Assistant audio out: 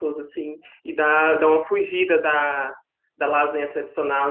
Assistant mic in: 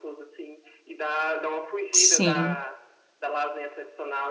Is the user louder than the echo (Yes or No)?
Yes